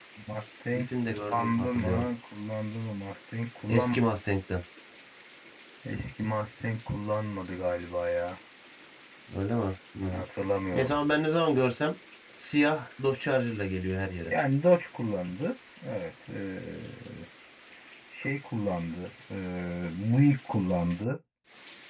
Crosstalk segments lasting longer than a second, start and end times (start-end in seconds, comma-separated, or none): 0.7-2.0